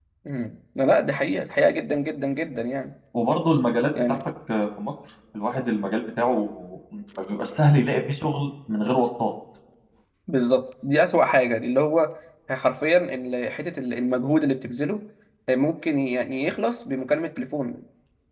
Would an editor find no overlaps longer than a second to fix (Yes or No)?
Yes